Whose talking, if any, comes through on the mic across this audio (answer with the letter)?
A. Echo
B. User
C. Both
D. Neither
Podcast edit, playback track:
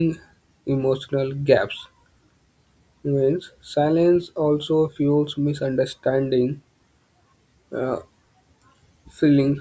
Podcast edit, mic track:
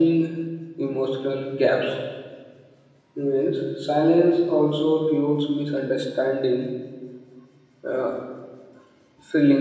A